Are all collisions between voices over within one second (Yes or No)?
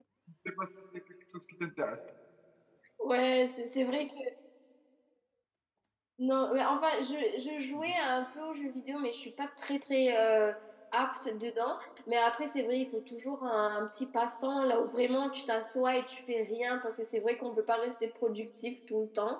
Yes